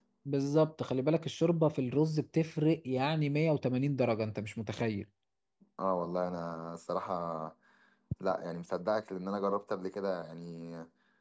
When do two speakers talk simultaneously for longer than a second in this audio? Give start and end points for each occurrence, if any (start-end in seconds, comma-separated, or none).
none